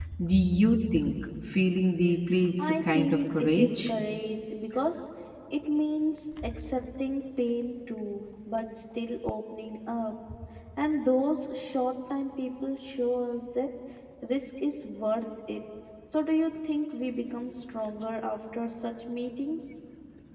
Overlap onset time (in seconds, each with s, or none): 2.6 s